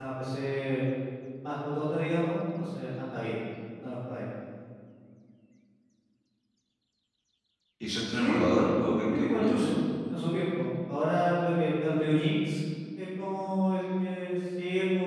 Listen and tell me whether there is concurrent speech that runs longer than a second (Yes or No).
Yes